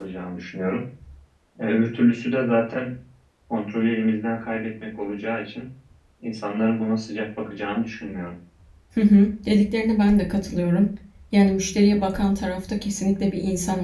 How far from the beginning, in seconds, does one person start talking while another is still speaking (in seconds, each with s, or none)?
none